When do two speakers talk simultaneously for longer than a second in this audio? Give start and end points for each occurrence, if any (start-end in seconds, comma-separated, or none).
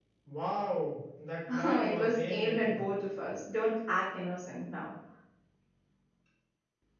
1.5-2.8